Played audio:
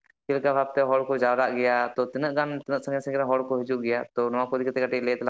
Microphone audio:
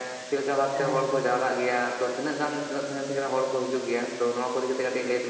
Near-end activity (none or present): present